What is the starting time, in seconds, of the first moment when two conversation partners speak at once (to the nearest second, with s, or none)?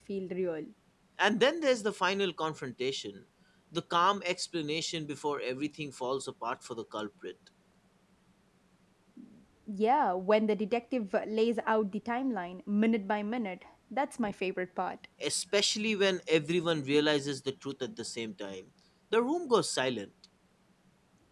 none